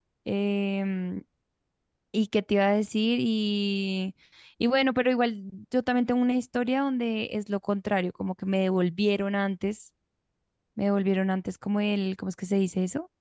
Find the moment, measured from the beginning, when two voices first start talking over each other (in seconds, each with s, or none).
none